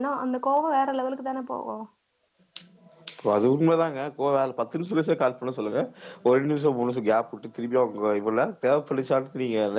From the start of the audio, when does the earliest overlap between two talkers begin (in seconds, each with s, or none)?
none